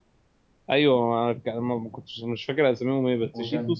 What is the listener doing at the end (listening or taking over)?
listening